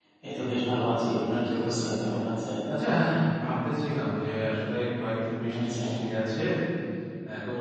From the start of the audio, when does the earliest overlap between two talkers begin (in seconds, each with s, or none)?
0.5 s